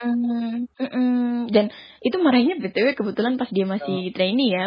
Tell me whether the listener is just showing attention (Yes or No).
Yes